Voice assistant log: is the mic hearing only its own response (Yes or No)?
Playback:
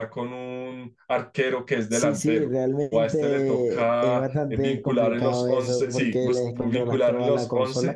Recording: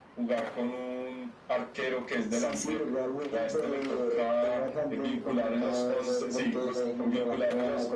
Yes